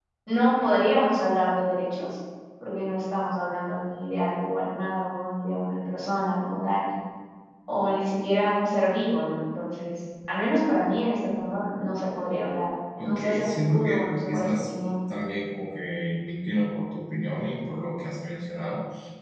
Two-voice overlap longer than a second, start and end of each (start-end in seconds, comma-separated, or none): 13.0-14.7